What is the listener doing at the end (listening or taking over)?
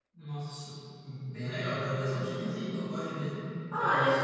taking over